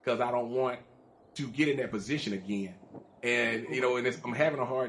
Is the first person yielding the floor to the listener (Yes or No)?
No